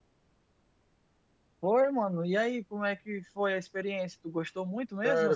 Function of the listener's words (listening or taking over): taking over